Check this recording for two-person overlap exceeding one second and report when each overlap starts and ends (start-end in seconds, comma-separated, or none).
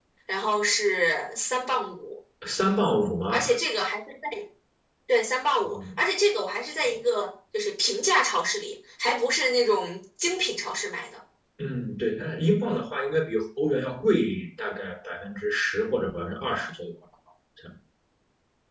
none